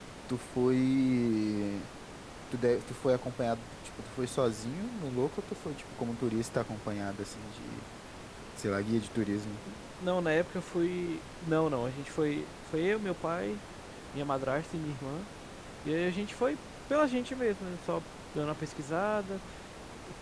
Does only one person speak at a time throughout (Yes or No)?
Yes